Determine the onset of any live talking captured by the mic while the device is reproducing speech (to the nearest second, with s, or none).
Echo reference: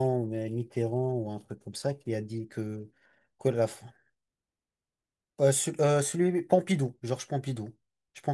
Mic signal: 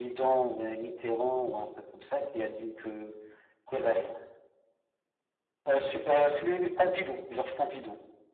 none